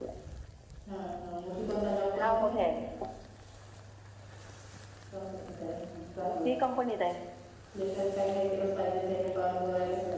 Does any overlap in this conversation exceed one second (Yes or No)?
No